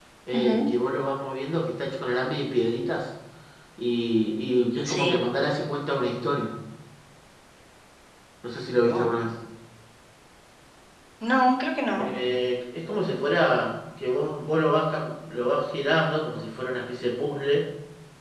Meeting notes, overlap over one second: none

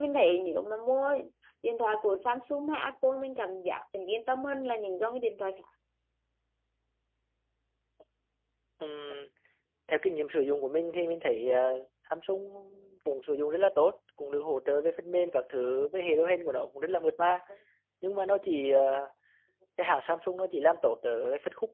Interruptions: none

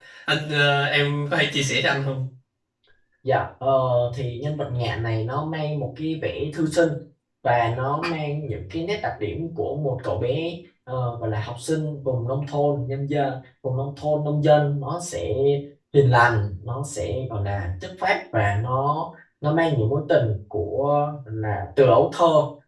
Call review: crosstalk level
none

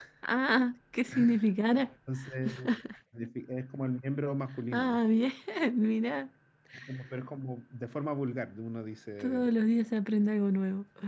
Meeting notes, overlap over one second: none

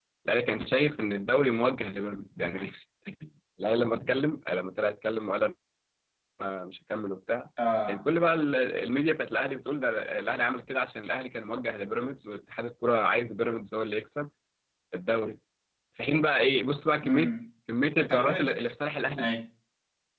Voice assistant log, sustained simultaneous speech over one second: none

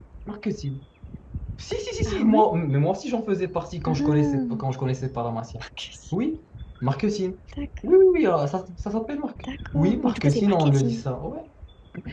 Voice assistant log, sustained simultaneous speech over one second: present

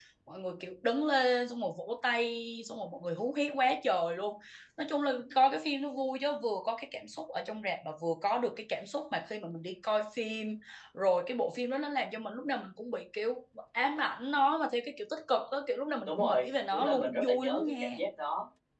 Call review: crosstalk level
present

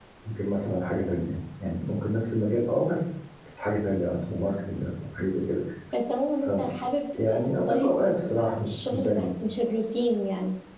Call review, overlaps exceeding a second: present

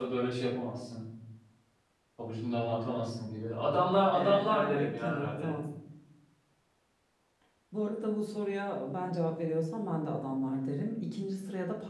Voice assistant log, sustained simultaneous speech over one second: present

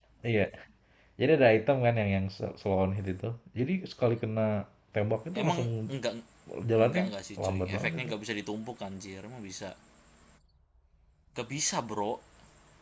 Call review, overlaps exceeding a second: present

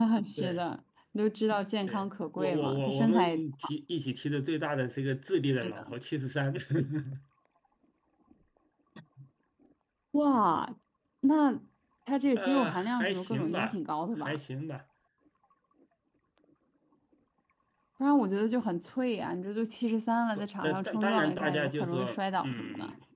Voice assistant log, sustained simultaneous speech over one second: present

